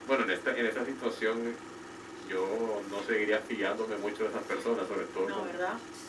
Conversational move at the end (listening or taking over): listening